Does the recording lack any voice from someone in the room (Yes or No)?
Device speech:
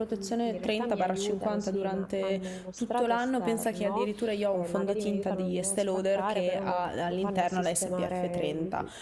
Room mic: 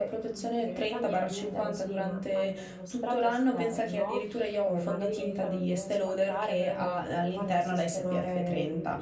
Yes